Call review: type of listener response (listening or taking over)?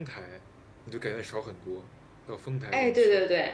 taking over